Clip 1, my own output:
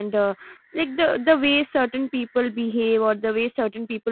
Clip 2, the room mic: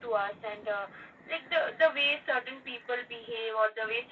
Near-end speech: none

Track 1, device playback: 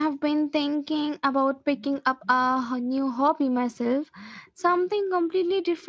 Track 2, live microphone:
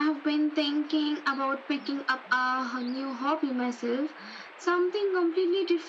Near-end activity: none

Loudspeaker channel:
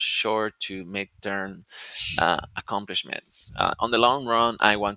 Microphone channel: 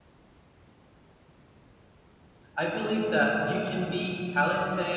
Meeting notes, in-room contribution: present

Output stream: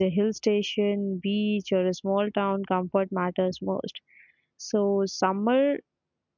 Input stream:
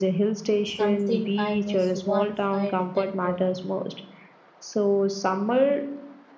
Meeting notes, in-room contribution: present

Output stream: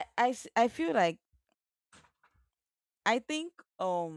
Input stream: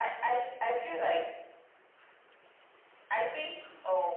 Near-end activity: none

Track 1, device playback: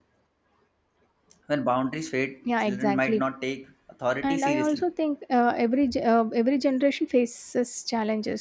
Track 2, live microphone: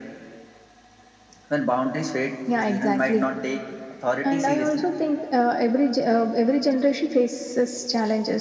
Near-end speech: none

